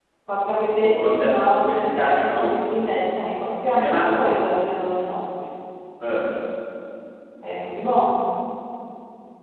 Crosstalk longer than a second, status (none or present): present